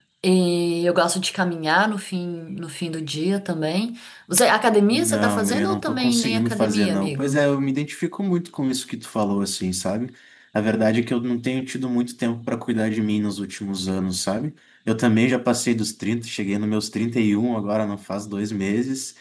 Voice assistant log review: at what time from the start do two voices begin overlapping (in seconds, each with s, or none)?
4.9 s